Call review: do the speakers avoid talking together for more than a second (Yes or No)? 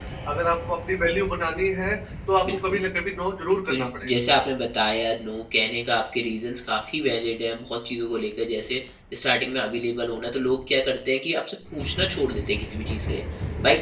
Yes